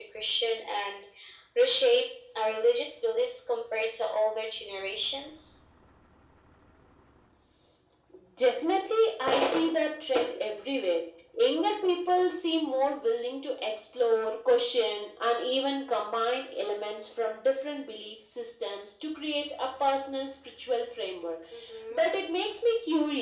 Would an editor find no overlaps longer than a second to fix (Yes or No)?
Yes